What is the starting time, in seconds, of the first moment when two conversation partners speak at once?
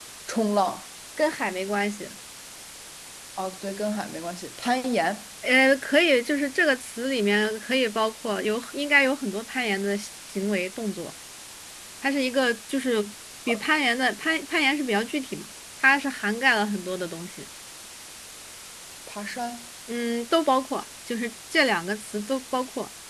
none

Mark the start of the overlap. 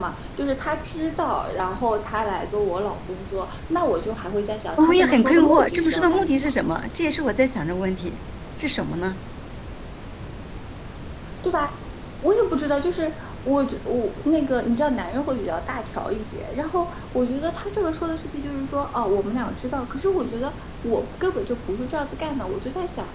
4.8 s

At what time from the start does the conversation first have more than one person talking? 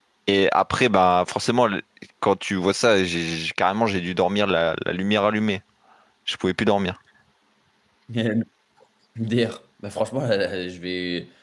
none

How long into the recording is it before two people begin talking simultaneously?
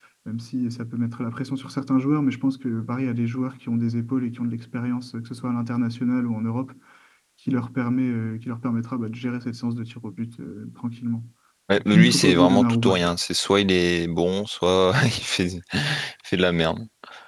11.8 s

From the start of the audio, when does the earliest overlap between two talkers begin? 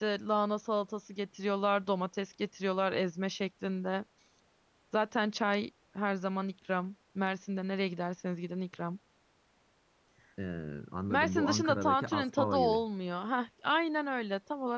11.1 s

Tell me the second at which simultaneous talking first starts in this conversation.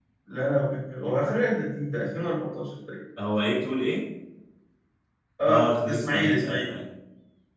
5.4 s

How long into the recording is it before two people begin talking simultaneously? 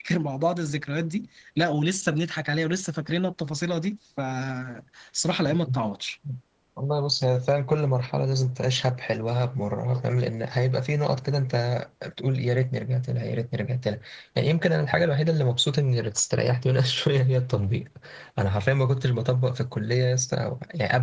none

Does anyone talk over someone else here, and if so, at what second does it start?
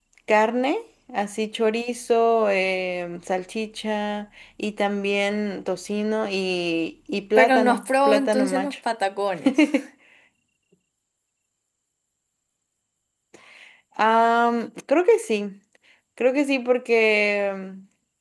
7.4 s

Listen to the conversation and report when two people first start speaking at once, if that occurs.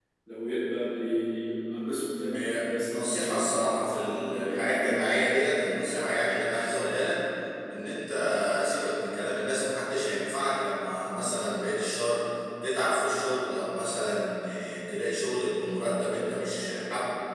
2.3 s

